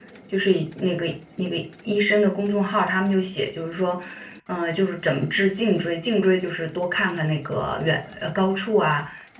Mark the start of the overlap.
none

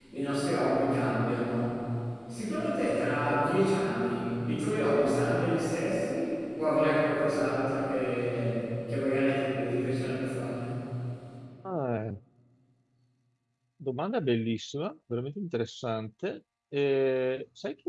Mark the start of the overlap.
none

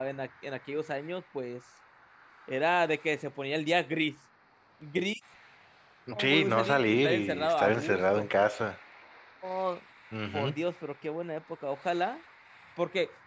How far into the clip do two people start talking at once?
6.1 s

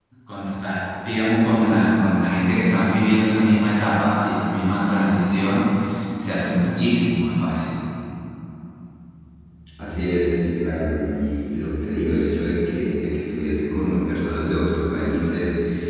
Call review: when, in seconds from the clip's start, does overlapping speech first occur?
none

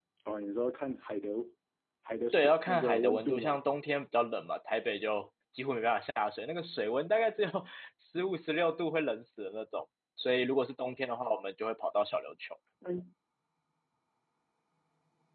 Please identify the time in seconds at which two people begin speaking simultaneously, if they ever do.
2.3 s

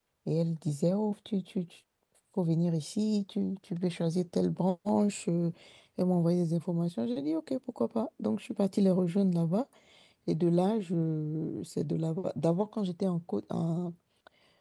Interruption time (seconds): none

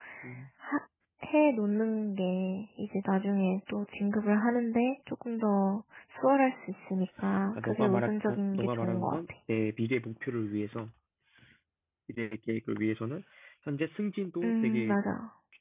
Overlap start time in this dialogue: 7.6 s

